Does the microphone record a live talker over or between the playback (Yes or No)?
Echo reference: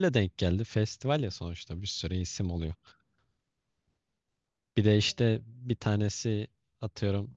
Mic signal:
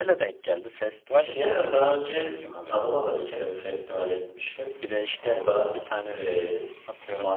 Yes